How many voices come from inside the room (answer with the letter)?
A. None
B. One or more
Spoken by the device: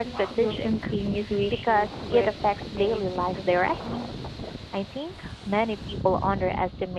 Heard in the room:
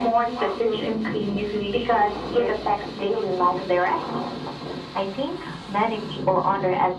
A